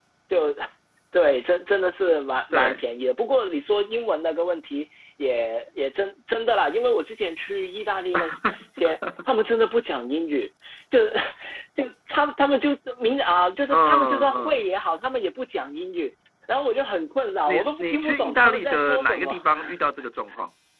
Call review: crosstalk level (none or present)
present